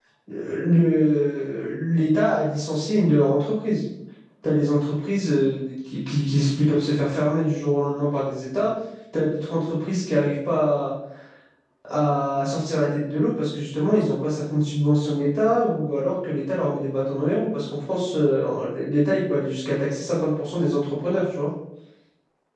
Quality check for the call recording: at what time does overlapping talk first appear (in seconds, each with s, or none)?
none